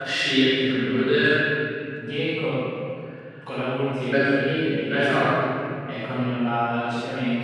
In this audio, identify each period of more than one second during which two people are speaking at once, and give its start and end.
none

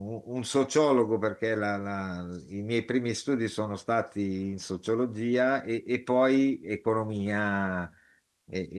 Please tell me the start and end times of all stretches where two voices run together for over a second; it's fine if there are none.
none

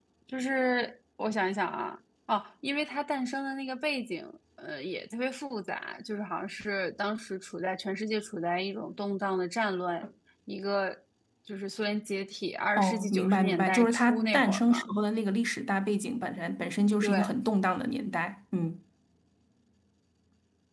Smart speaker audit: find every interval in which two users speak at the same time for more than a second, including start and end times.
12.8-14.9

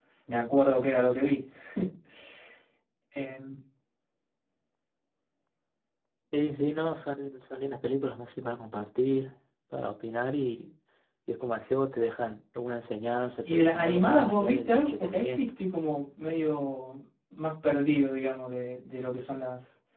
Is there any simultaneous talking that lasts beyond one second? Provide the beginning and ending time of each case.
13.4-15.5

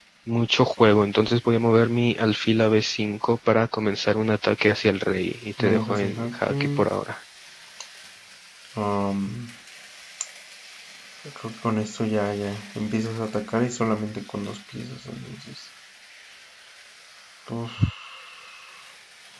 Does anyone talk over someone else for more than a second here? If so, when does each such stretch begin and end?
5.6-6.9

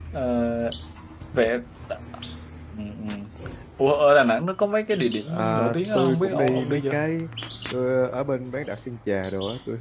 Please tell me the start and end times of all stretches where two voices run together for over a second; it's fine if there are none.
5.3-7.0

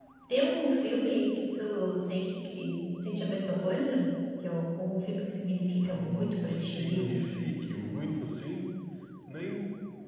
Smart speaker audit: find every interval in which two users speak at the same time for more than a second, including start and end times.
5.9-7.2

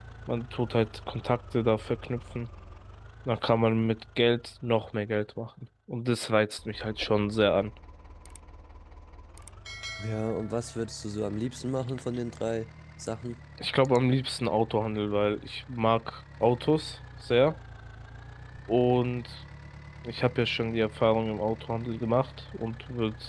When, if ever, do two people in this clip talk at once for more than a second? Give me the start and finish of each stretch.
none

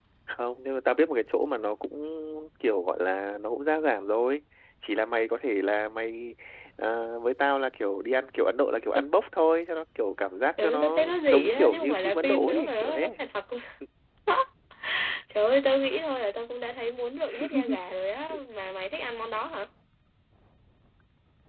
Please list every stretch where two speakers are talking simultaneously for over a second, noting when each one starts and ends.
10.6-13.1

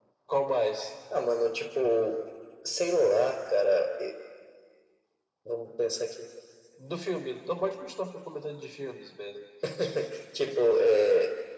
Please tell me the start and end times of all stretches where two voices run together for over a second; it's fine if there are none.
none

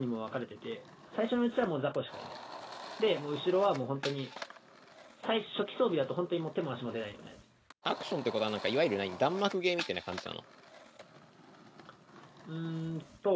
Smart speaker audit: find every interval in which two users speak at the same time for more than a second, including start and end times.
none

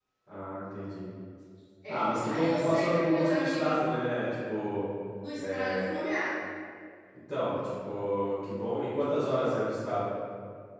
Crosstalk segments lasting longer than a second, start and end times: 1.9-3.7

